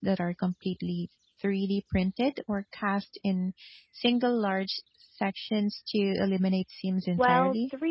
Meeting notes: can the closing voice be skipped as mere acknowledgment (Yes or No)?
No